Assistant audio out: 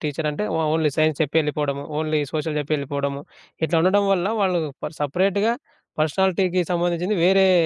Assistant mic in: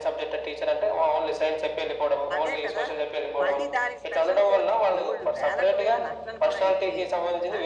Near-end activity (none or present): present